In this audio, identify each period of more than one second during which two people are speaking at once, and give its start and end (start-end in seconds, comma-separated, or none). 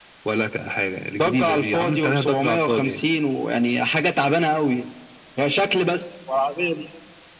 1.2-2.9